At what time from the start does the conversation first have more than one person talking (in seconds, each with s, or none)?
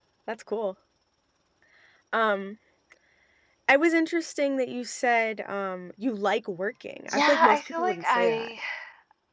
7.1 s